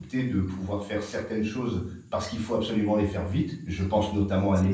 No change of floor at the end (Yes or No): Yes